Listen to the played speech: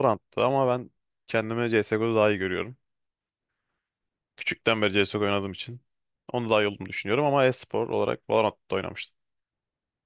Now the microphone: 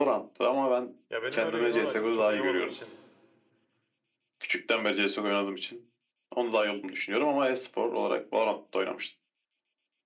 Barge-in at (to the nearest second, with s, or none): 1 s